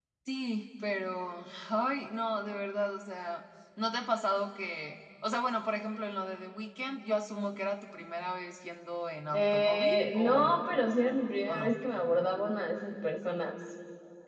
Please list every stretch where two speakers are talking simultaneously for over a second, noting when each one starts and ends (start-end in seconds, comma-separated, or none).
9.3-10.6